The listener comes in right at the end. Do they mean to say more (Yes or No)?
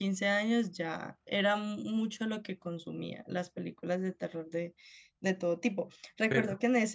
No